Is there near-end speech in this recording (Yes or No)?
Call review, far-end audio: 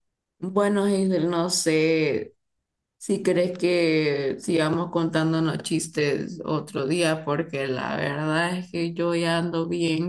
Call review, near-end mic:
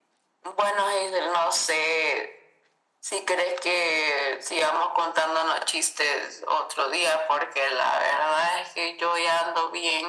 No